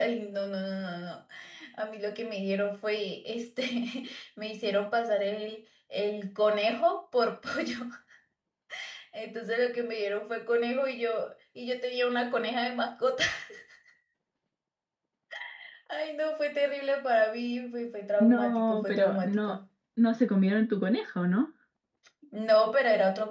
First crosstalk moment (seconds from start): 18.2 s

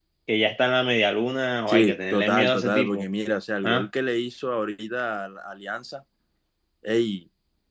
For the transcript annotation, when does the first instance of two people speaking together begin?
1.7 s

